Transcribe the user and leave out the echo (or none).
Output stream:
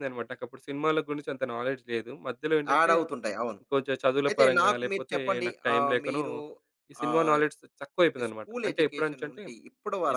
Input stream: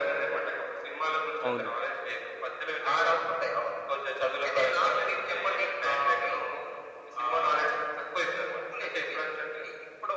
అవునండి.